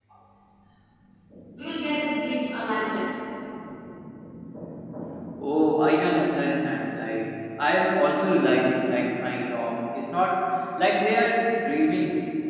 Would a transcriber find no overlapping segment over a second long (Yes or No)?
Yes